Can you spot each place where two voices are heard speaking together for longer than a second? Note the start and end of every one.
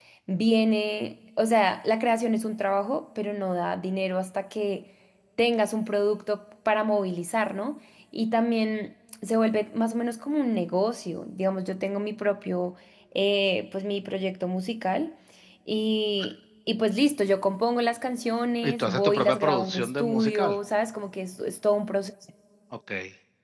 18.6-20.6

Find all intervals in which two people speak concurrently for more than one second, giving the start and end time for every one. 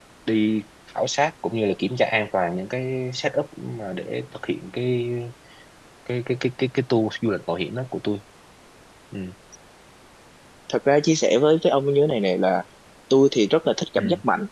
none

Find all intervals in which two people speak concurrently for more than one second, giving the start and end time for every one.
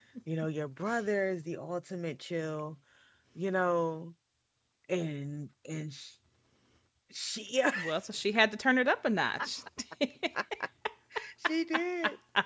none

